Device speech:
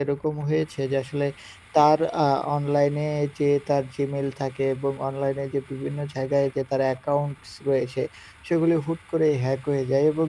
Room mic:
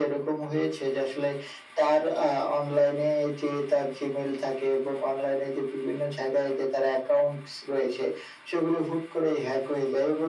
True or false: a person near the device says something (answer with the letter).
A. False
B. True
A